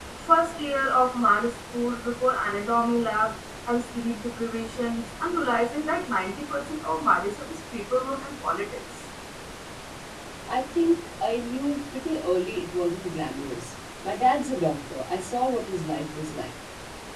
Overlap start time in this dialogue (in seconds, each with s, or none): none